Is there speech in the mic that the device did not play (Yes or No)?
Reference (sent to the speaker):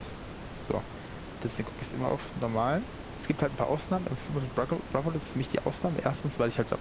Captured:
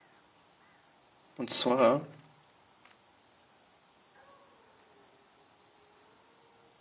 Yes